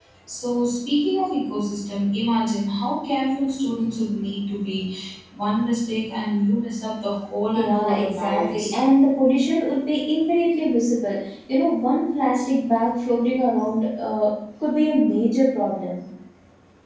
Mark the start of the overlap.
8 s

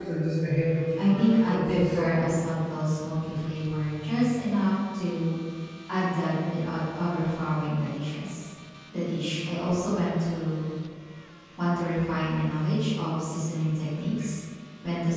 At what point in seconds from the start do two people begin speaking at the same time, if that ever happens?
1 s

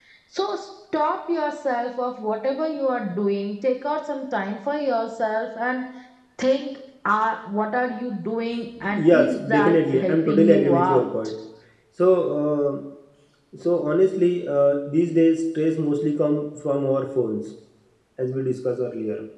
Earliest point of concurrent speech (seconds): 9 s

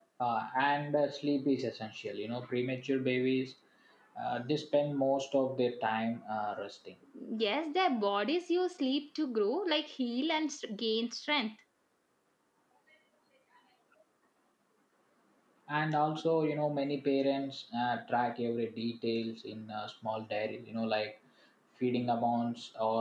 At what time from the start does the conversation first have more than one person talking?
none

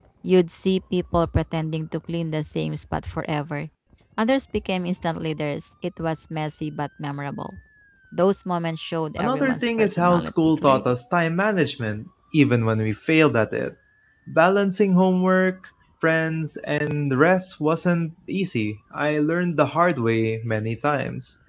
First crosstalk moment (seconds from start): 9 s

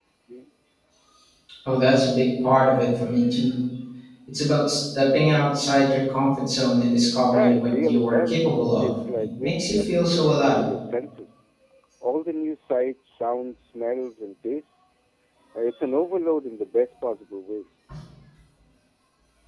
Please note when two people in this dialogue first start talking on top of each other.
7 s

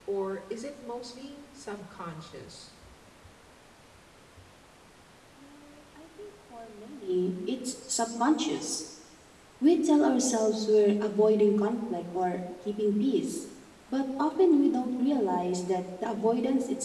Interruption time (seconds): none

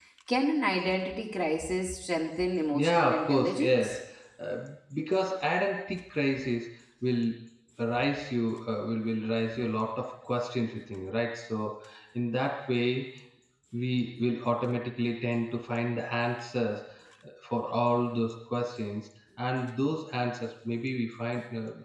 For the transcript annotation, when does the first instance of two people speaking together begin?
3 s

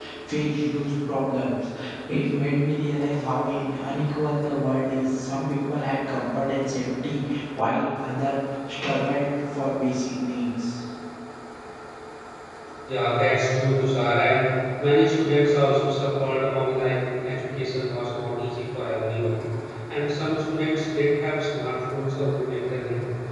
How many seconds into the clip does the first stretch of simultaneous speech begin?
none

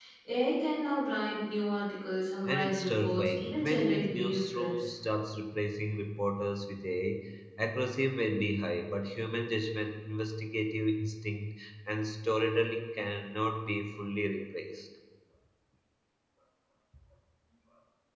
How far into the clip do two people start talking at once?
2 s

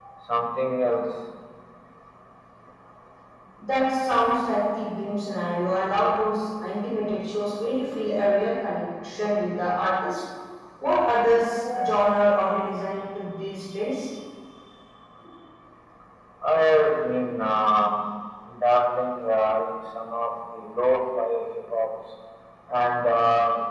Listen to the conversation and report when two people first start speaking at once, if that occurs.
none

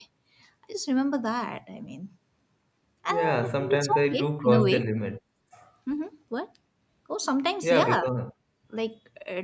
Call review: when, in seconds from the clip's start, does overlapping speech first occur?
3 s

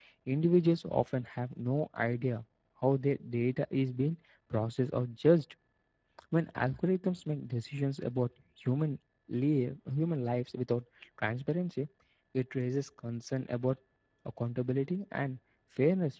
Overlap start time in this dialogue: none

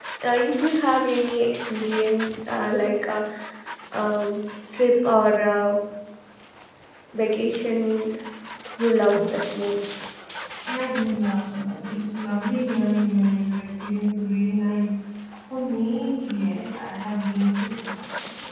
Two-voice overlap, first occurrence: none

